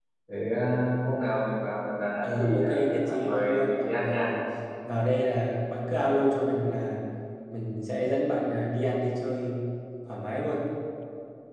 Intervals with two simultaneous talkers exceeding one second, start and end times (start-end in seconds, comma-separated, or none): 2.2-4.3